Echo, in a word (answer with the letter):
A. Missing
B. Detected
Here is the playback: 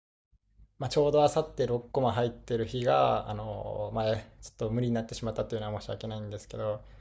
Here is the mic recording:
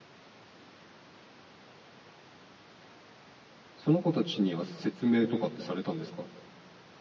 A